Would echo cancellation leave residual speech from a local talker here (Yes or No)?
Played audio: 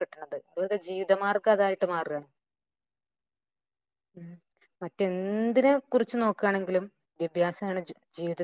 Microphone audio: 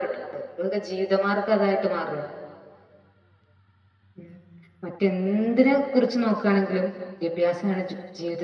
No